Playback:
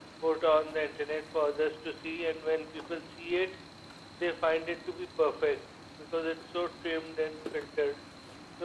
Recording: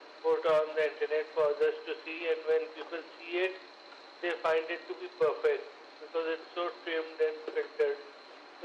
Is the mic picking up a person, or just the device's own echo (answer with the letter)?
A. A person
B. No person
B